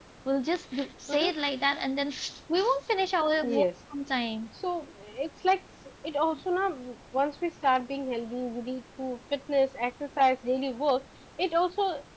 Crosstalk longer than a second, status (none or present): none